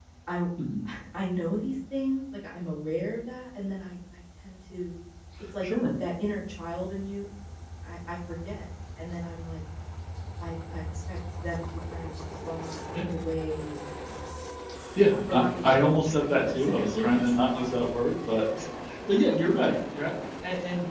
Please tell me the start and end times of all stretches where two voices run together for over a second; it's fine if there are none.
15.3-17.9

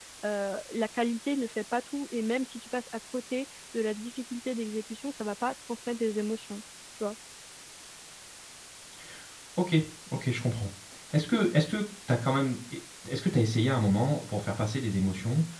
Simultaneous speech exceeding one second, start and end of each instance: none

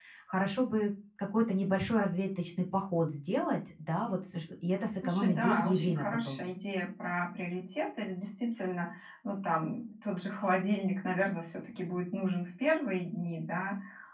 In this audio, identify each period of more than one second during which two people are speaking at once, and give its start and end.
5.0-6.4

